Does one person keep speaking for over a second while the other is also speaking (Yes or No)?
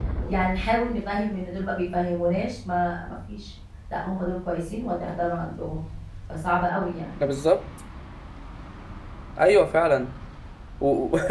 No